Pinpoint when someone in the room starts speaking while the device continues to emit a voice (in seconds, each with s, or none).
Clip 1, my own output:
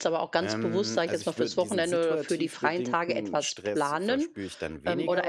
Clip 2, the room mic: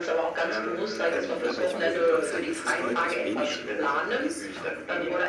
1.0 s